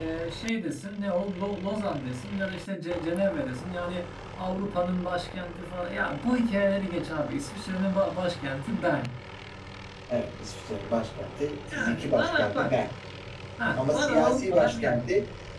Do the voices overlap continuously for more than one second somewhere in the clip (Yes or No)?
Yes